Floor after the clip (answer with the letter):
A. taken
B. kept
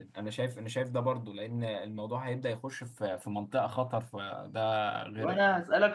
A